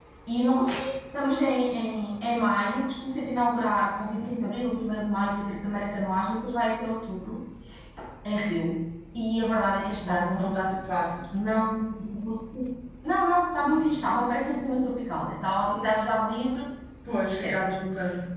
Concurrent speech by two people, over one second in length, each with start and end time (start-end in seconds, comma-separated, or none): none